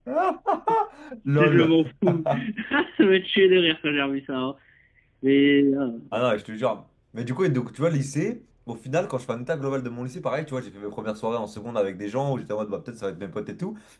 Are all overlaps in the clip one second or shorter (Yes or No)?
Yes